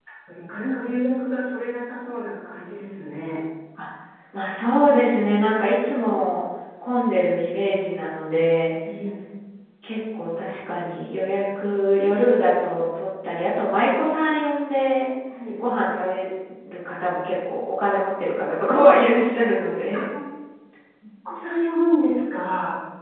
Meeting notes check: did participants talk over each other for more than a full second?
No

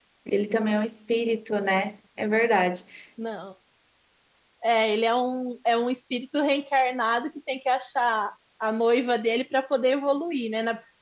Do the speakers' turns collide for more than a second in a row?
No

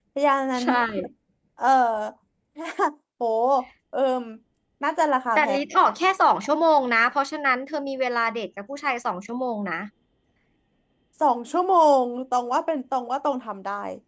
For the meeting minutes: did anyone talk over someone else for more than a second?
No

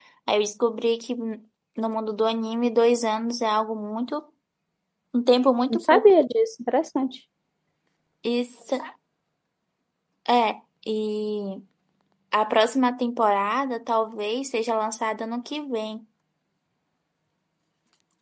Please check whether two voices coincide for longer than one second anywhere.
No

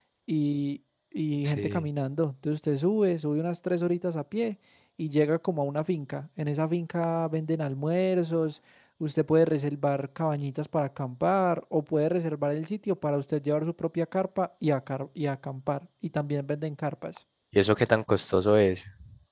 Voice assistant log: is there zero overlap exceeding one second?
Yes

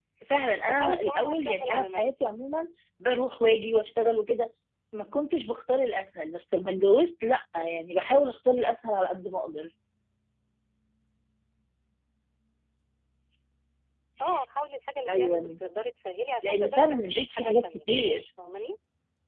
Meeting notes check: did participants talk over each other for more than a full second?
Yes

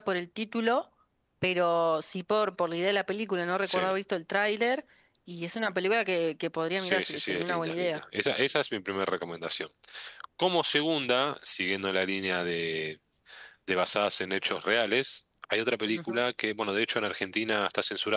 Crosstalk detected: Yes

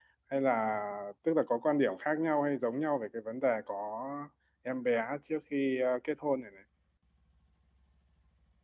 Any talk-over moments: No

